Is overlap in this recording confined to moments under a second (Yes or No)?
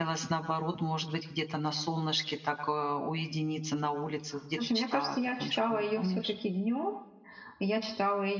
No